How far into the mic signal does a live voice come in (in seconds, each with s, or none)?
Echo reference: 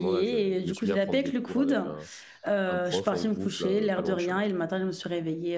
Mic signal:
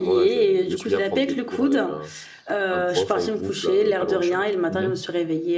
4.7 s